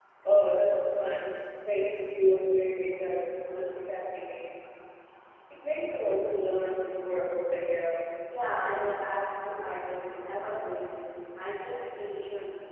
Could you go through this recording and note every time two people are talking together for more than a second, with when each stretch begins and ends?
none

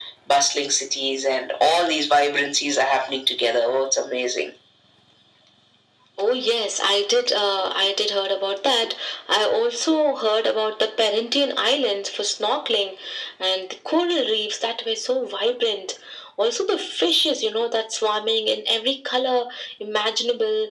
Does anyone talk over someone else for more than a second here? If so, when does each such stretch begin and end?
none

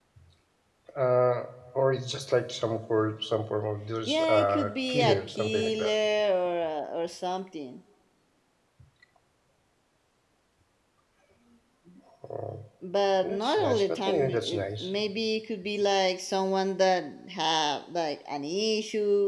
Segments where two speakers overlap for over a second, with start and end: 4.1-5.9, 13.2-14.9

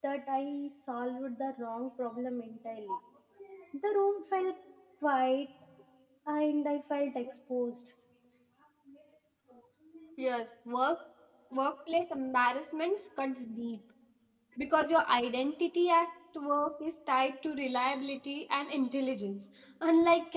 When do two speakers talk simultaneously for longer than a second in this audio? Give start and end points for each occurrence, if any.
none

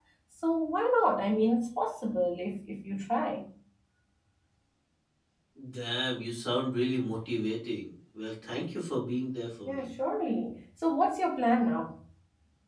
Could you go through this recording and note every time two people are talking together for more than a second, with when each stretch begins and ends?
none

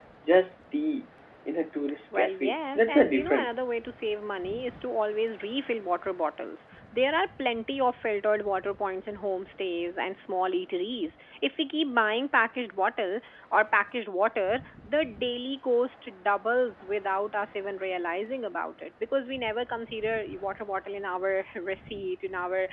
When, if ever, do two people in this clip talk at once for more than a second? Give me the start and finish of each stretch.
2.2-3.5

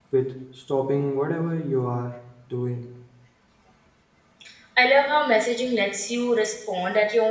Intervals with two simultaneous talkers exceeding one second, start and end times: none

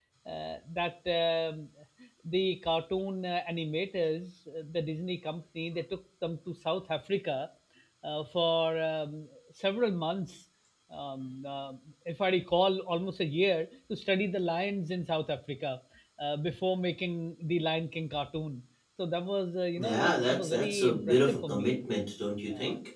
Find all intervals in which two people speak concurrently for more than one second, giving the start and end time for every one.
19.8-21.7

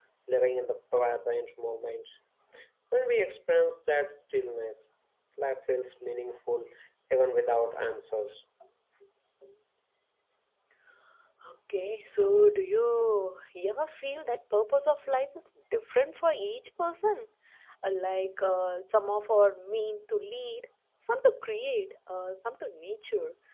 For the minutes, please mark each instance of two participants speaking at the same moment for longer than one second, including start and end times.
none

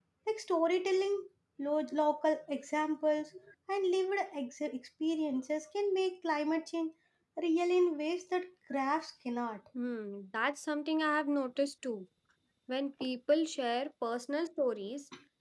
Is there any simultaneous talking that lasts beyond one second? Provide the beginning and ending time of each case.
none

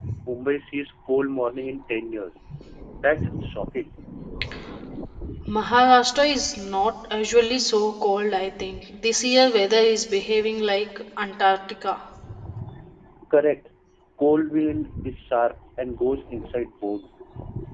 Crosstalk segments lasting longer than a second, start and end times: none

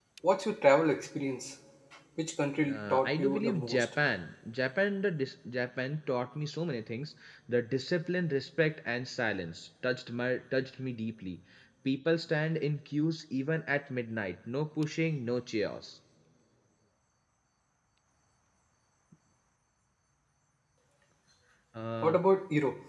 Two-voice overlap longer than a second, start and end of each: 2.7-3.9

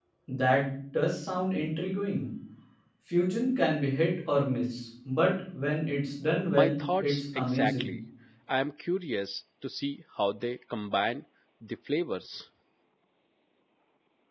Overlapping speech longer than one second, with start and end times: 6.5-8.0

